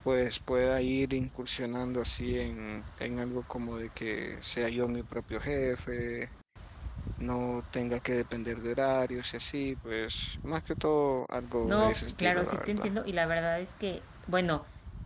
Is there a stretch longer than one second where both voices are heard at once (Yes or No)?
Yes